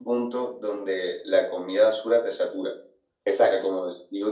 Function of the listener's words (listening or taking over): listening